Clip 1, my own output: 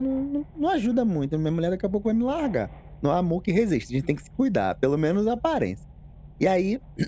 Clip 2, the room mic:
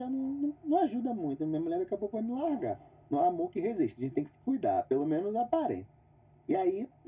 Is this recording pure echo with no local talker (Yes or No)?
Yes